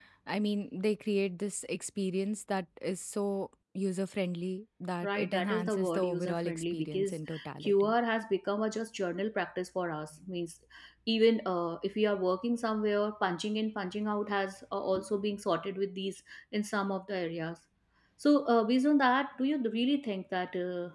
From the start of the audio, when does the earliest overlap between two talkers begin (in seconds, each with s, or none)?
5.0 s